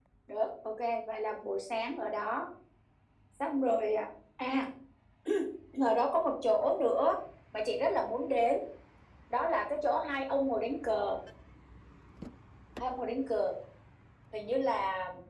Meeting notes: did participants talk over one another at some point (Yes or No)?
No